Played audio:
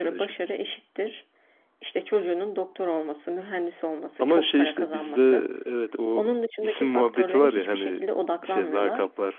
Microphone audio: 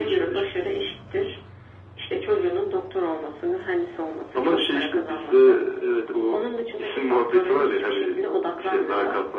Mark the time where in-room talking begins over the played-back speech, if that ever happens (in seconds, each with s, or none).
none